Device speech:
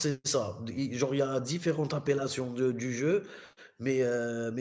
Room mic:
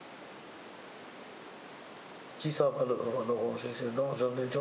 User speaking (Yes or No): Yes